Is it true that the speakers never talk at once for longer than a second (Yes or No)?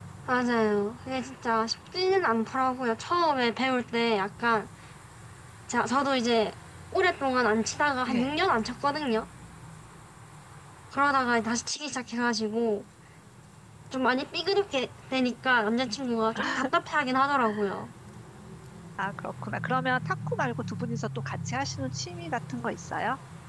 Yes